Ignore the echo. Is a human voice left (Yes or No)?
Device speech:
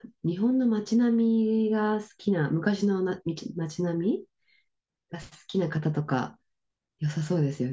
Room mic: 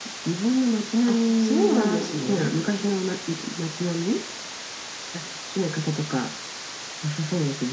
Yes